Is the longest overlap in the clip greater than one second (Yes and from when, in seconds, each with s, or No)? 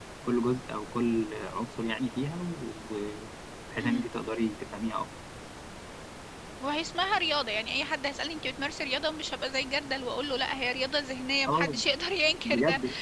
No